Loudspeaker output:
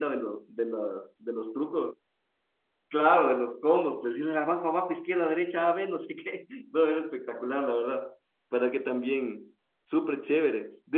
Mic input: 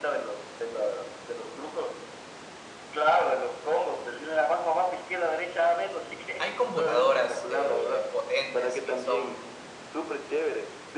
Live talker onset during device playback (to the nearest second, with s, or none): 6 s